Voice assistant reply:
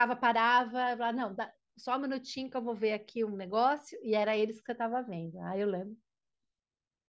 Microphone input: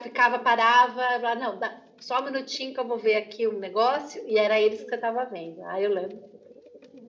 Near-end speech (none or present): none